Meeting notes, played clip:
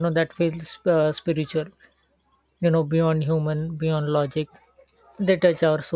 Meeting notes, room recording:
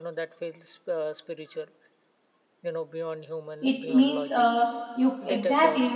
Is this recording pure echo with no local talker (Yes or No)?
No